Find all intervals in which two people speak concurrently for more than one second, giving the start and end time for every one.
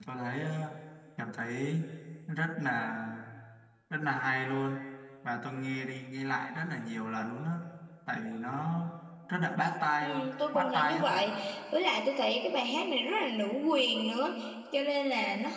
10.0-11.3

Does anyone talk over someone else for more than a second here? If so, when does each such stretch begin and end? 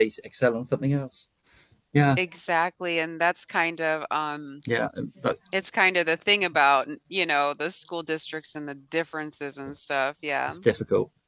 none

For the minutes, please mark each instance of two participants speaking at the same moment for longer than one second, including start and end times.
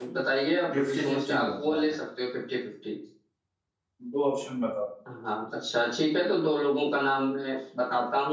0.7-1.9

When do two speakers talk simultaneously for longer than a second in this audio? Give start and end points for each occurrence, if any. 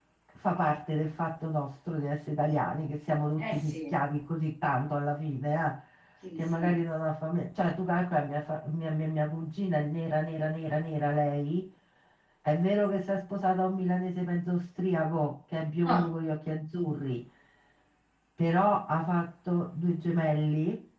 none

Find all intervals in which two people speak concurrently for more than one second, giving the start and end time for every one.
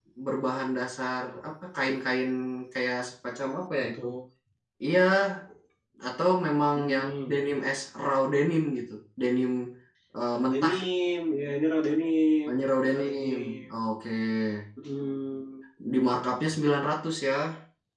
12.5-13.7

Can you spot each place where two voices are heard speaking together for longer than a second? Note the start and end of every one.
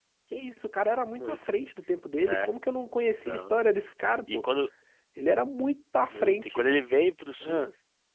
none

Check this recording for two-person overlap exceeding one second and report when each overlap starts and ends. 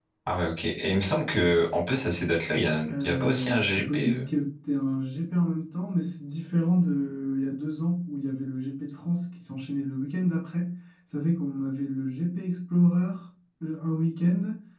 2.9-4.3

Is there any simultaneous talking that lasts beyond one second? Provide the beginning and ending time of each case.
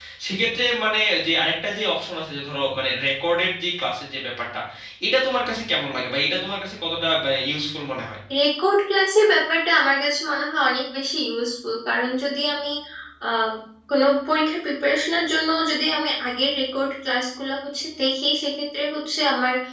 none

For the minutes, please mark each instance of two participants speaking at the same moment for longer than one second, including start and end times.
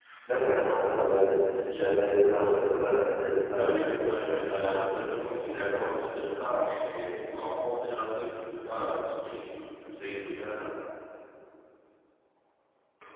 3.5-5.2

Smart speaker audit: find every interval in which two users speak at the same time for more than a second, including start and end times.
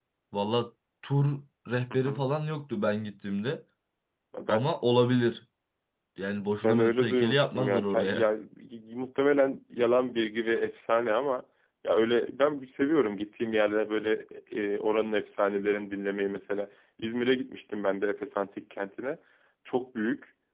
6.6-8.2

